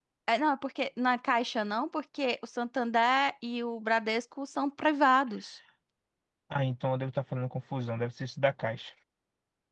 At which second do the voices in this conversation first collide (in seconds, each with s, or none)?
none